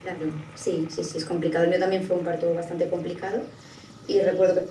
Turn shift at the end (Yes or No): No